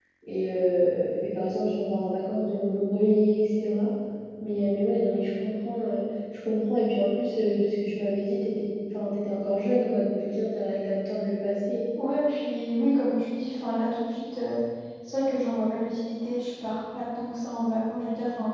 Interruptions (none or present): none